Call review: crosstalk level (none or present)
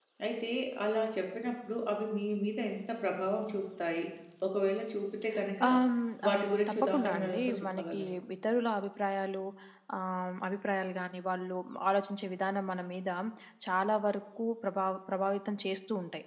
present